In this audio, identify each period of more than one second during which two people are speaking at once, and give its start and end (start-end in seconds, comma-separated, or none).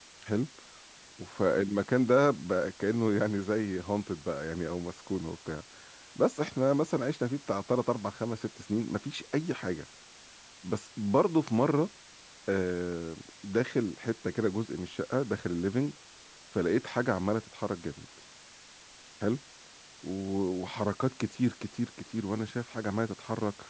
none